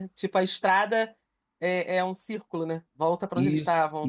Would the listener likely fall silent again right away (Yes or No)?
No